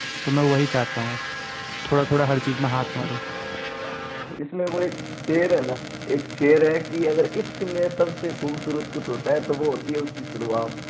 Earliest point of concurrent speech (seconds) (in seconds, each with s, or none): none